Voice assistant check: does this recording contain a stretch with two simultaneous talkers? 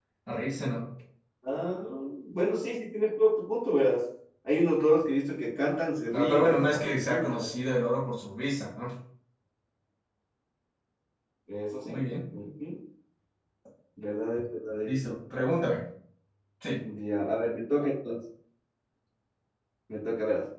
Yes, from 6.1 s

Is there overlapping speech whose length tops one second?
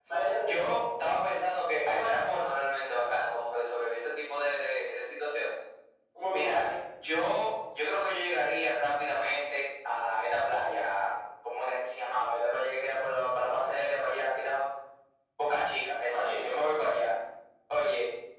No

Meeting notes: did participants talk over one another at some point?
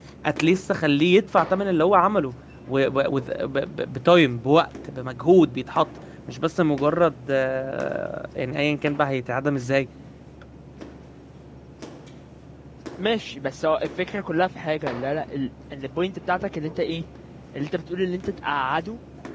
No

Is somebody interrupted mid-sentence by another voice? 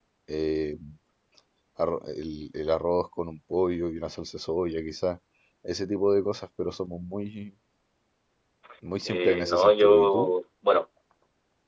Yes, from 9.0 s

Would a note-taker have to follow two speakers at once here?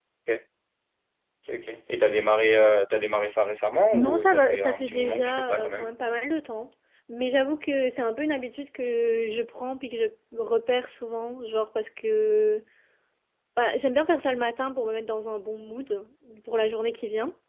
Yes, from 3.9 s

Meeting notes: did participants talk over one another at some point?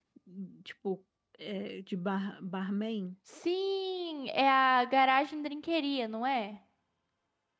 No

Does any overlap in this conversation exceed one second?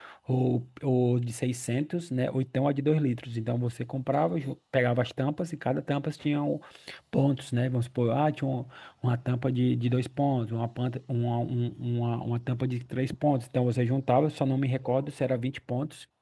No

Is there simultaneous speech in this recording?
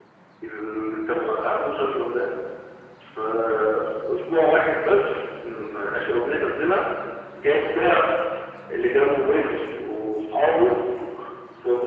No

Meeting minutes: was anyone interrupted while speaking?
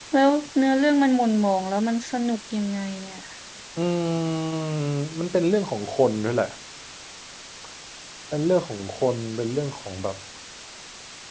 No

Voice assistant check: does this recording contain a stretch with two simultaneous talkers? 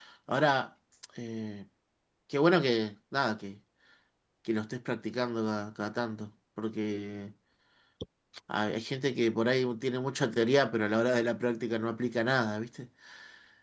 No

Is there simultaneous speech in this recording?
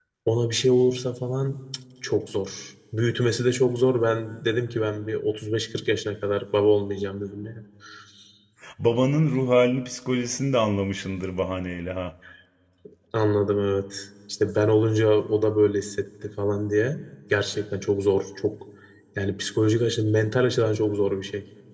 No

